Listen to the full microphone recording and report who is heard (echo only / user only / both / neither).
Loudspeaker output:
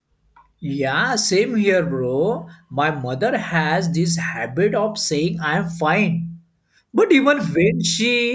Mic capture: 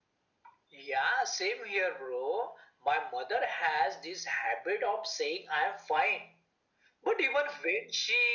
echo only